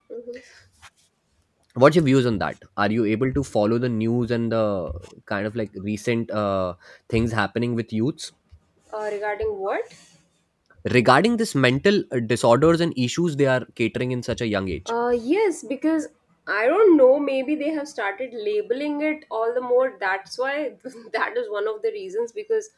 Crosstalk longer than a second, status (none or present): none